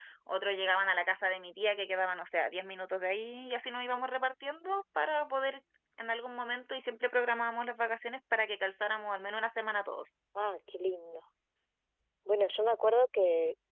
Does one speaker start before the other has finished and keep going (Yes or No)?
No